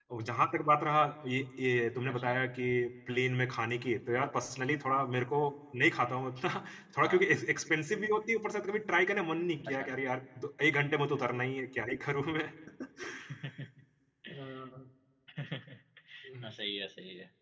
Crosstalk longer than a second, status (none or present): none